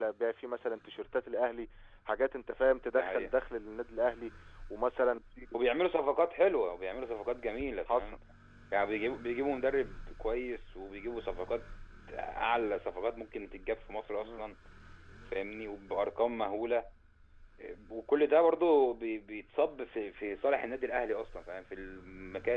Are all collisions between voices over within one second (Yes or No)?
Yes